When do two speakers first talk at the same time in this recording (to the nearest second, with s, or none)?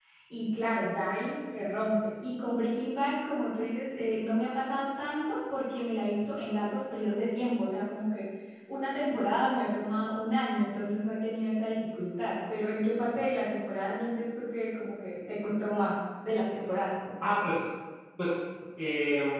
none